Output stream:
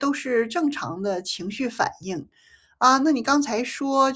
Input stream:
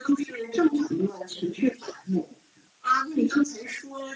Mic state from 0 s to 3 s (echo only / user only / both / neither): echo only